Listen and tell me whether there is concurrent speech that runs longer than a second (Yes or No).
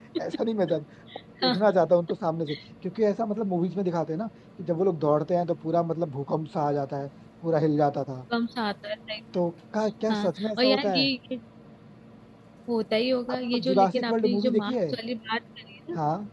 Yes